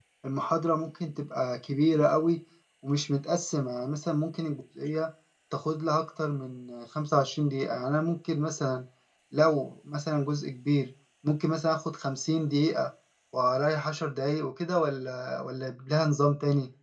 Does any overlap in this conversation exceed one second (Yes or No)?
No